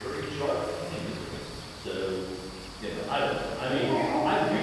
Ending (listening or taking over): taking over